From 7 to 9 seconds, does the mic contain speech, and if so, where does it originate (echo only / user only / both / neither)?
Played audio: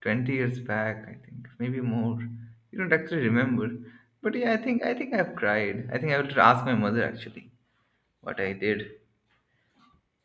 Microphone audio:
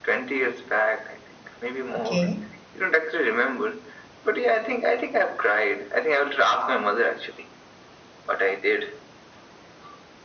echo only